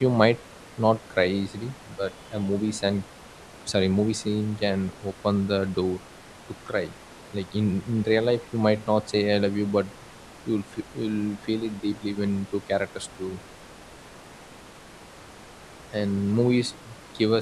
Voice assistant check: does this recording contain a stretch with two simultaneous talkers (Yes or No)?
No